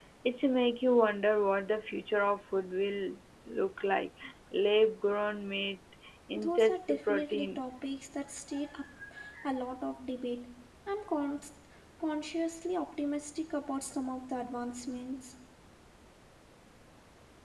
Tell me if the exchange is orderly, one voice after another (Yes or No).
No